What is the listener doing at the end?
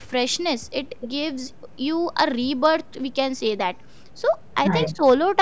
listening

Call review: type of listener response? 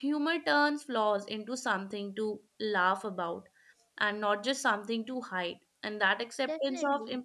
listening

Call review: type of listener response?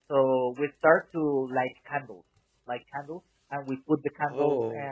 listening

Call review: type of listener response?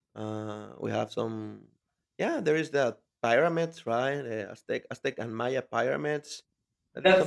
taking over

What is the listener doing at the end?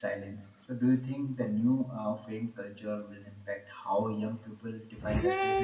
taking over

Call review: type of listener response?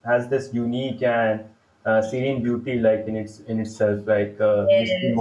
taking over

